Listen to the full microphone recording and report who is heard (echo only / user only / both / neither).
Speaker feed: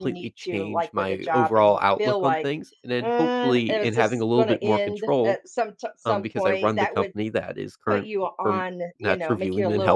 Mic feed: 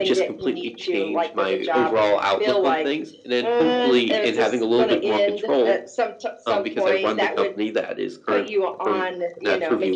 both